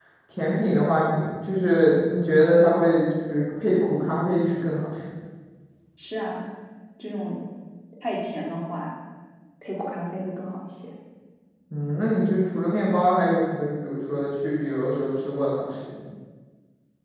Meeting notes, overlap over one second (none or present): none